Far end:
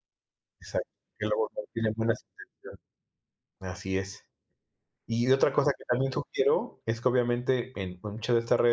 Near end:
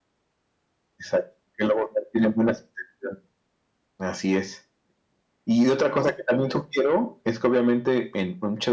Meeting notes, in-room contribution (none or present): none